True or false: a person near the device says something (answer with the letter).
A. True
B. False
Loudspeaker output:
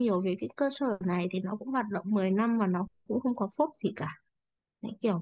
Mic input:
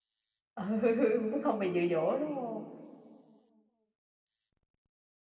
A